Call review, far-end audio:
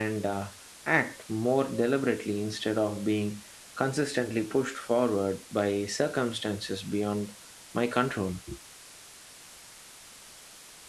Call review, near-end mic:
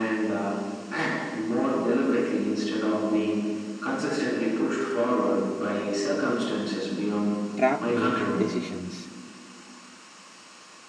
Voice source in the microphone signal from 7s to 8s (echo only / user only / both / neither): both